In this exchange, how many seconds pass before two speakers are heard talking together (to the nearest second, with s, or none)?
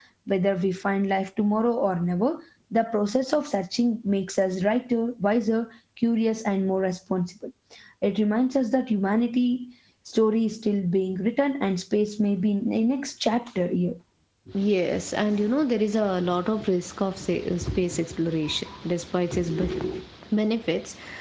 none